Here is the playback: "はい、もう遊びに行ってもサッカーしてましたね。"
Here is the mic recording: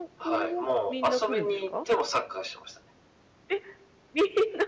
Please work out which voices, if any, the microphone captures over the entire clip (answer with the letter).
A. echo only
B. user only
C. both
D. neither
C